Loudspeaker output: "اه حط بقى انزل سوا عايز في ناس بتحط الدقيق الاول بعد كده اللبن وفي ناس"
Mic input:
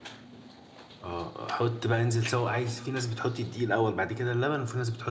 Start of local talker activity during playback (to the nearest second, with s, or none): none